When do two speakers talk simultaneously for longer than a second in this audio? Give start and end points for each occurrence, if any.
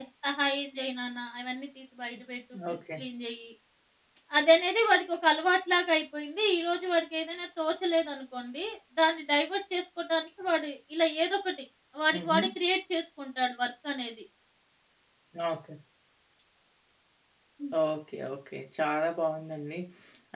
none

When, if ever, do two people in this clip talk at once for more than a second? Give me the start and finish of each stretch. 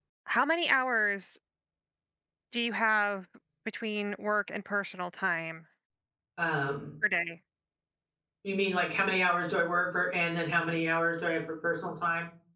none

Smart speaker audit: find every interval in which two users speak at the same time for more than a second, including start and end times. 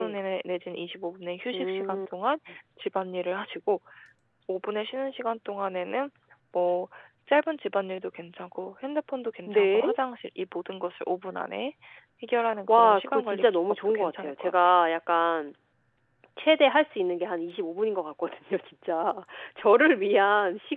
12.7-14.5

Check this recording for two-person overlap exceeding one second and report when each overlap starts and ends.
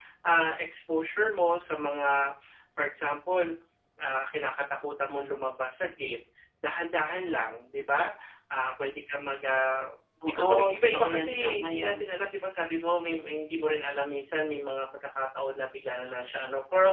10.3-11.9

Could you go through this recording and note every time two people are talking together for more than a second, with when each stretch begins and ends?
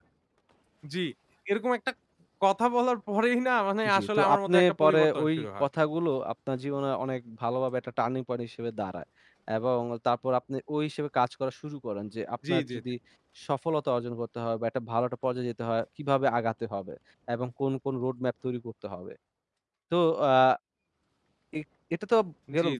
4.0-5.6

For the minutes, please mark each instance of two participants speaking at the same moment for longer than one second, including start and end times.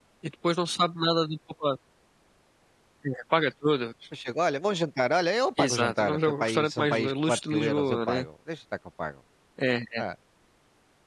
5.6-8.2

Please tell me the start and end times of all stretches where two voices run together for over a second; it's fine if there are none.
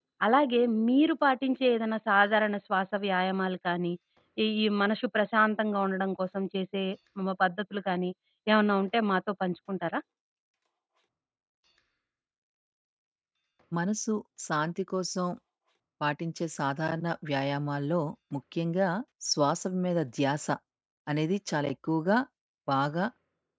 none

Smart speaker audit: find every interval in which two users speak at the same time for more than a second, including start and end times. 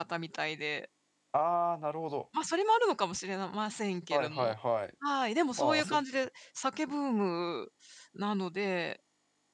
none

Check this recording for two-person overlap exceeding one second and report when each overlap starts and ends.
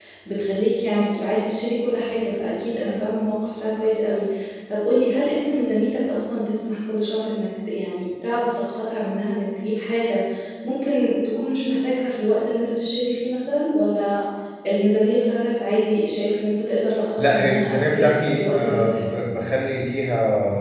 17.2-19.1

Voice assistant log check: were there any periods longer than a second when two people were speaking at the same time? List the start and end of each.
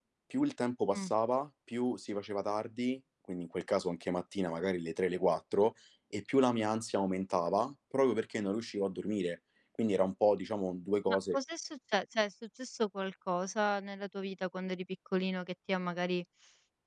none

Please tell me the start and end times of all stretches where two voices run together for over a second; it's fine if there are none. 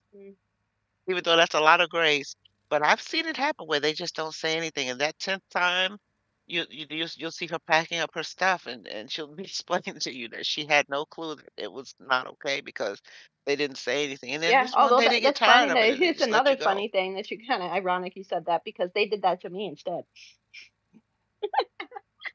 14.5-16.8

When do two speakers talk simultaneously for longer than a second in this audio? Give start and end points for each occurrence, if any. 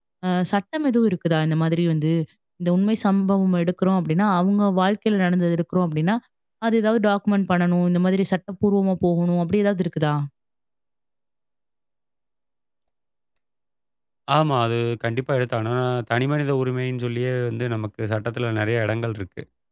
none

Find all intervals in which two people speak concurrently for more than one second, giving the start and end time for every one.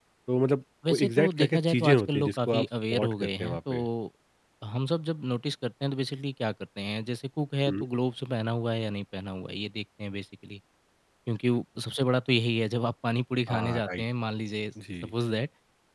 0.9-3.9

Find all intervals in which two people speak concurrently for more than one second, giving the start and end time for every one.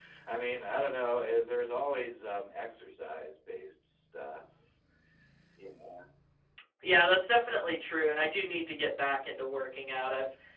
none

